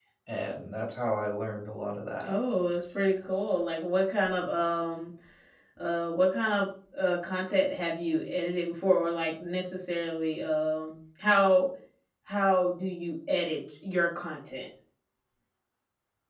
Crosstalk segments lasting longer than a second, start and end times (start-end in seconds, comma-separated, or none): none